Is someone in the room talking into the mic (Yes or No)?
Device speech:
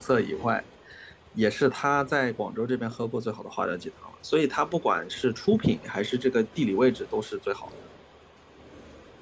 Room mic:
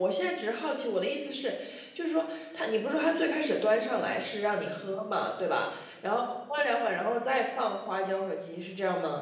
Yes